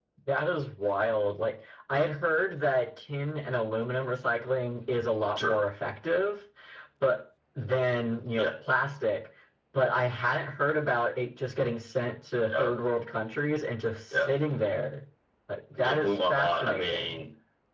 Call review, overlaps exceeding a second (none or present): present